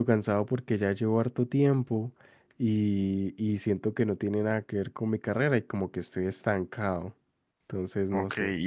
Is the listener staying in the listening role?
No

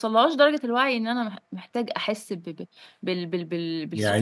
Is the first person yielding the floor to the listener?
Yes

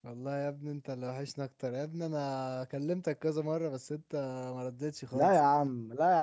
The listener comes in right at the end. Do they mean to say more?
Yes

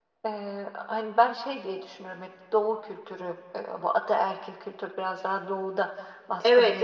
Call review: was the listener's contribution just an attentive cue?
No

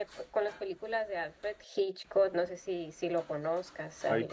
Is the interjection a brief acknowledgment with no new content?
No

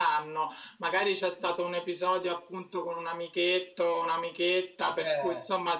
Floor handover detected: No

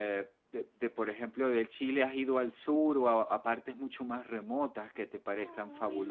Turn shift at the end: Yes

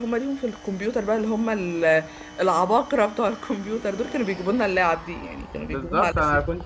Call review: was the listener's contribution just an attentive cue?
No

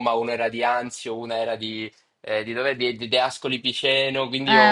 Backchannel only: Yes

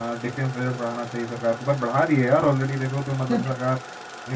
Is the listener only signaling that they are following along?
Yes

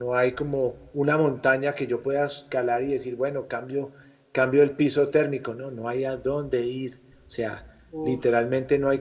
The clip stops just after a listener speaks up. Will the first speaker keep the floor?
Yes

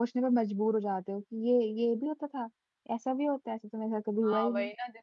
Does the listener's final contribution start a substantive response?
Yes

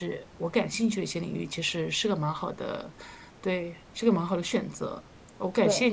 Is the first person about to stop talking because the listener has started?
No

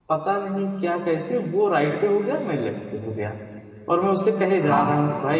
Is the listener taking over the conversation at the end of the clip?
No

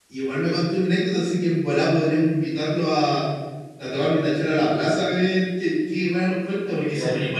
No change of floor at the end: No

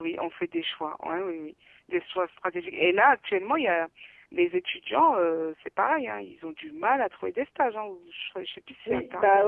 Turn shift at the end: Yes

